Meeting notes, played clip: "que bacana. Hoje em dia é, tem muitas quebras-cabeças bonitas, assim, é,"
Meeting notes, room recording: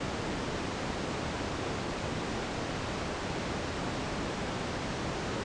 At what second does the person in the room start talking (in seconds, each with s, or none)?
none